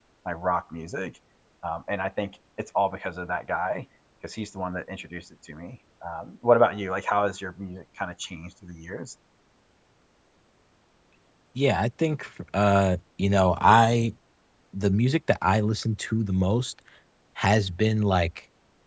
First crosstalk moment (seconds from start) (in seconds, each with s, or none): none